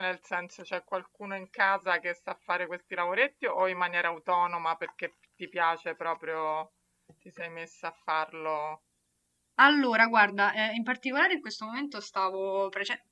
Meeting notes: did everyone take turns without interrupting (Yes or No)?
Yes